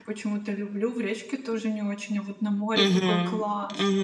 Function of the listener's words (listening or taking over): taking over